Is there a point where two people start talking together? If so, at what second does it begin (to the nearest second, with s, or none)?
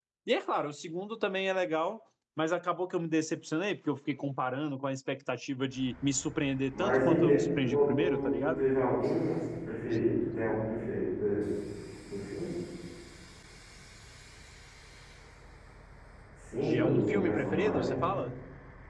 7 s